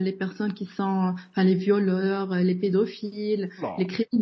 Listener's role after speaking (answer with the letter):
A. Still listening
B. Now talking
A